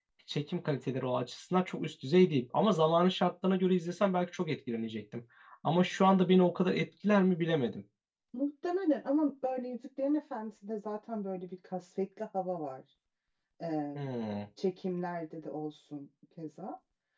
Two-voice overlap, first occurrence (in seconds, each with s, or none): none